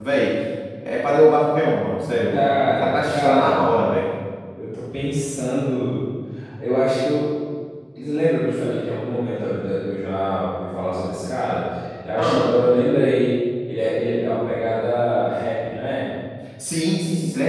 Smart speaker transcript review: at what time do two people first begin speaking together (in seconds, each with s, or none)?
2.3 s